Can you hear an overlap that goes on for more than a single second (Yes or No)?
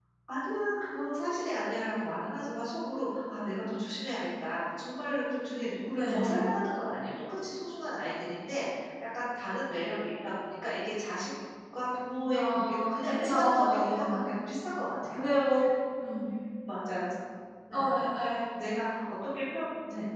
Yes